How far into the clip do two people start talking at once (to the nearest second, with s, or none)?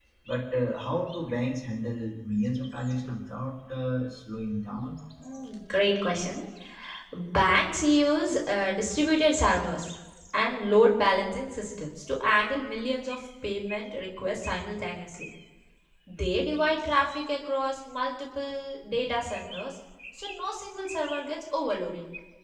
none